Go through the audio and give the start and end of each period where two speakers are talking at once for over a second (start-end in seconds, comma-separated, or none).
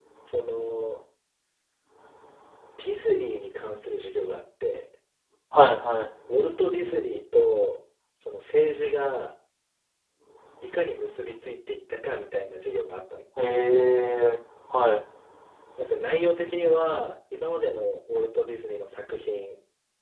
none